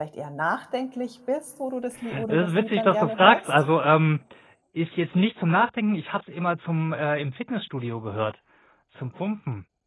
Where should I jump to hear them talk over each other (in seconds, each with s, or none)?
2.3 s